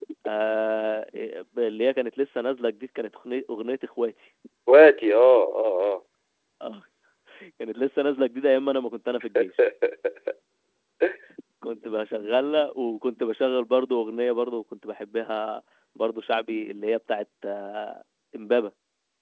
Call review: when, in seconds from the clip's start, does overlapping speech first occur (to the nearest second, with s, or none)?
none